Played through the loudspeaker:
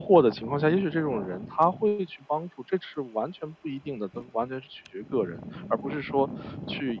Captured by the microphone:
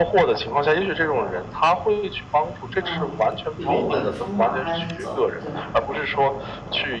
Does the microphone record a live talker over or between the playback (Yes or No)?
Yes